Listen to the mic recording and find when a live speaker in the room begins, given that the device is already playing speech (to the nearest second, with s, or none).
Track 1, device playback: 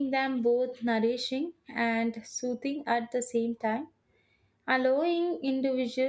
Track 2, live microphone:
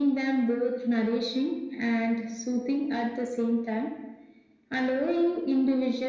none